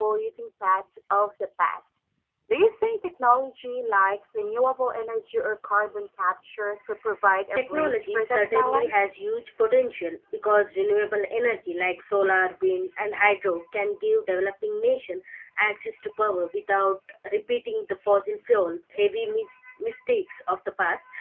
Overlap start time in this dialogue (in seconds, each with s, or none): 7.6 s